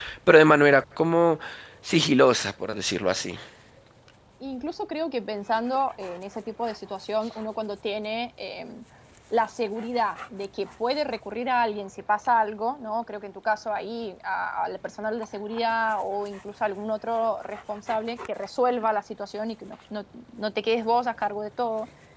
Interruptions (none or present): none